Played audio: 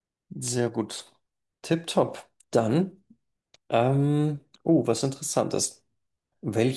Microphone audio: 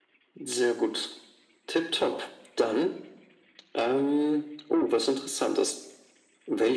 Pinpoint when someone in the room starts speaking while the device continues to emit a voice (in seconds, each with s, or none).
none